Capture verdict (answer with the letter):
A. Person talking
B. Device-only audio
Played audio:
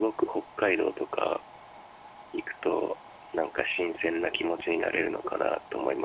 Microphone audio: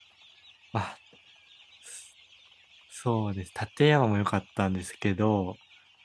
A